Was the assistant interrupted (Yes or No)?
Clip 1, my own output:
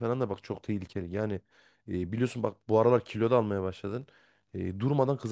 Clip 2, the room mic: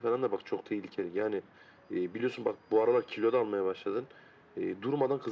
No